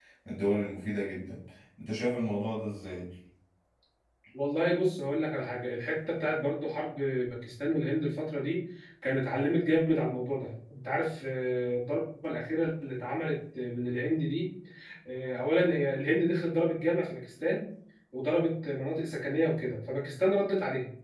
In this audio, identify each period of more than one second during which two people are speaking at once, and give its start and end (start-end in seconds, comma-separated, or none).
none